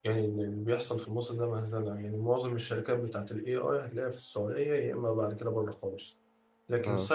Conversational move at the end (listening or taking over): listening